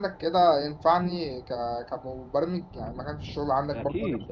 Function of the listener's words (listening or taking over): taking over